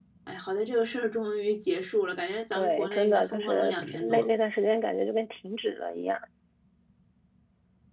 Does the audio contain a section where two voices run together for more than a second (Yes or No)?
Yes